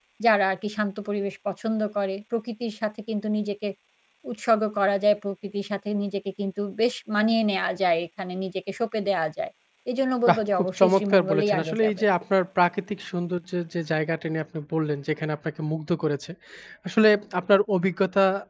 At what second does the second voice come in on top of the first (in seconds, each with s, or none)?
10.3 s